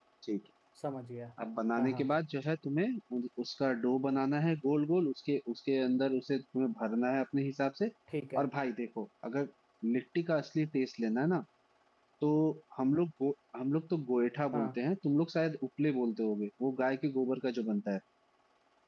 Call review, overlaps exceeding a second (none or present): none